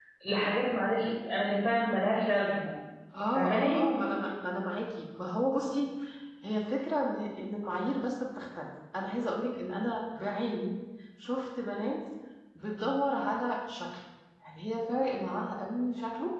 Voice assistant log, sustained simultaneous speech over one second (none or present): none